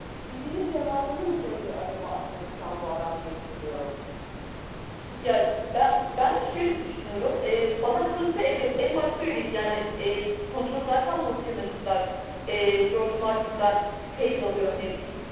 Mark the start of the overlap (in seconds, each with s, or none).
none